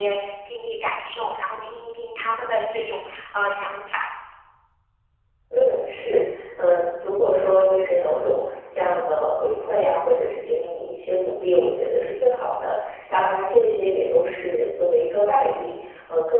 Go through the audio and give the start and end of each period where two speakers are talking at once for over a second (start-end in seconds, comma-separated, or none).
none